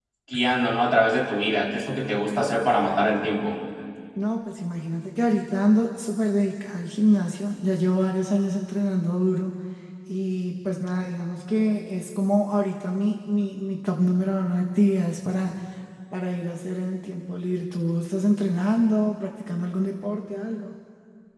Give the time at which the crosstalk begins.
none

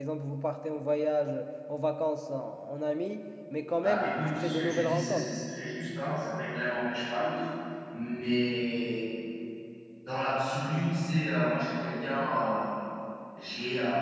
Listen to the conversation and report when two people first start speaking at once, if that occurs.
4 s

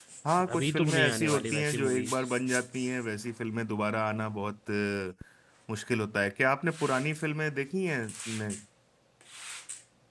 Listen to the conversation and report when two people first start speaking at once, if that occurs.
1 s

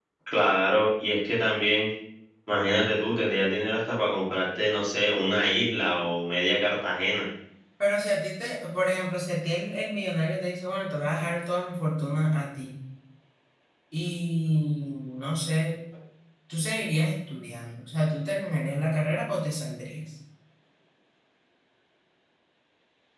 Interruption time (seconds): none

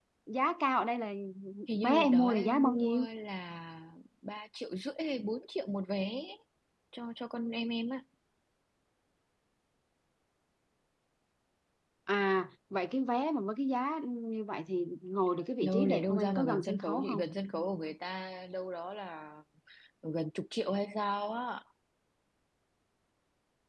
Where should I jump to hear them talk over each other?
2 s

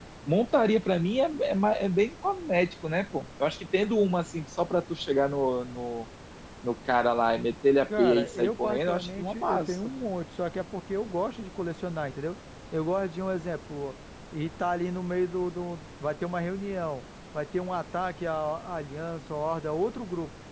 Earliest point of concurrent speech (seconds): 8 s

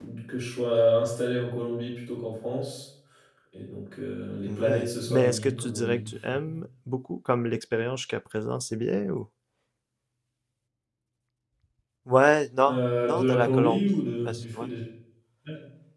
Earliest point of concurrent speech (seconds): 4 s

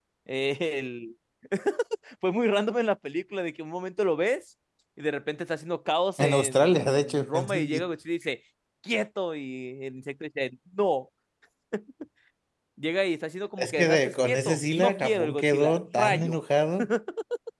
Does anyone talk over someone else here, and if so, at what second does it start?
6 s

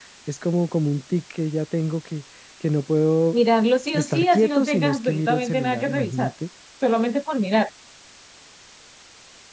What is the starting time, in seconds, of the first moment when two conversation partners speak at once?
4 s

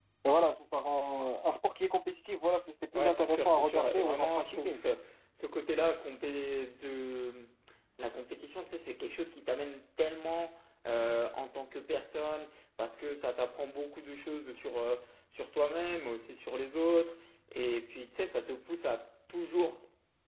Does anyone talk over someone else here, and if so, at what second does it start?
3 s

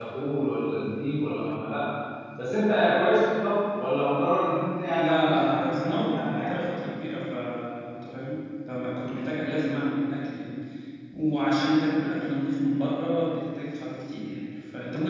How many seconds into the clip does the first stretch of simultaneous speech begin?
5 s

